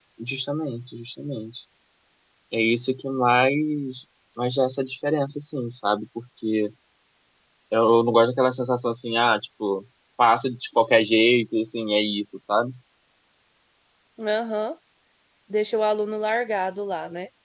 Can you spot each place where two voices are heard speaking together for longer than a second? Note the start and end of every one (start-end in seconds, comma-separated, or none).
none